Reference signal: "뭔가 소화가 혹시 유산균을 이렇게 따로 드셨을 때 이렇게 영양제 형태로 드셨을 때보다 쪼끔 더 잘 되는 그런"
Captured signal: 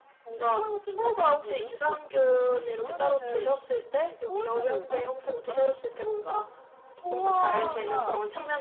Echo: present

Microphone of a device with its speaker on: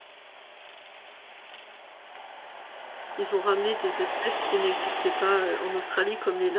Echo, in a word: none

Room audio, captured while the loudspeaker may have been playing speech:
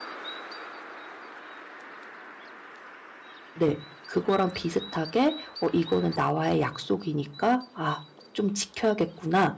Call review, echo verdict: none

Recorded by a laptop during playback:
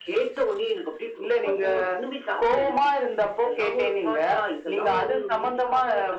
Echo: present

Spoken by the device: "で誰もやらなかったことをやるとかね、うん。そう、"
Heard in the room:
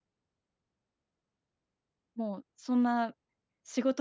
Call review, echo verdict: none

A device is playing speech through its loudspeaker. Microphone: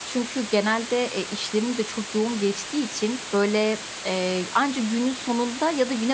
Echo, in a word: none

